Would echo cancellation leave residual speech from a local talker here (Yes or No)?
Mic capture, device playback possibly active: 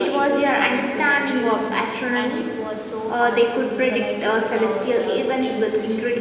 No